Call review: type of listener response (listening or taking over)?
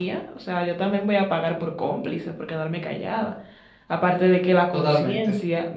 listening